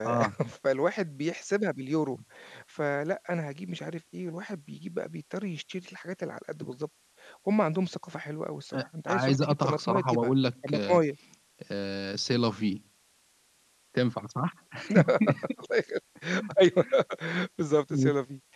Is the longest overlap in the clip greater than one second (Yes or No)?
Yes